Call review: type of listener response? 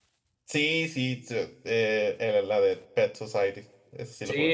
taking over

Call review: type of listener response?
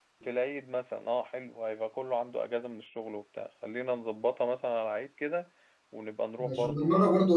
taking over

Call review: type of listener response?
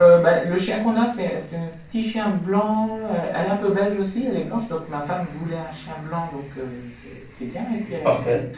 listening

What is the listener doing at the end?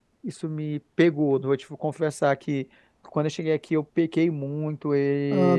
taking over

